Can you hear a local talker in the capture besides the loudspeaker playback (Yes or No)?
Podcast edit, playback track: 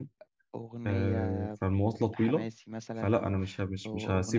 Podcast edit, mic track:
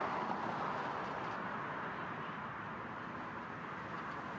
No